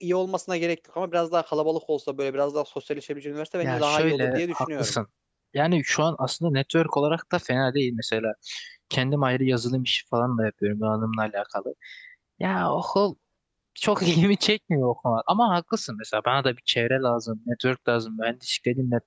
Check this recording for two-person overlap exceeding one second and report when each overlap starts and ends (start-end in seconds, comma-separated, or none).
3.6-4.9